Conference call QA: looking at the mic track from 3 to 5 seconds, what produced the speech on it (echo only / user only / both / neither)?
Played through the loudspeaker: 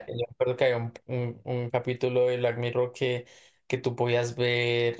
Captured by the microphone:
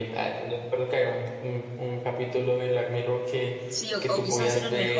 both